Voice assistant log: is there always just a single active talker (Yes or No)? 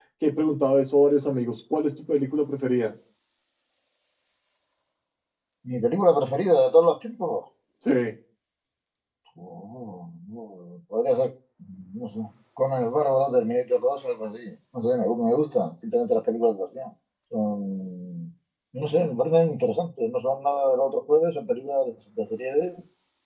Yes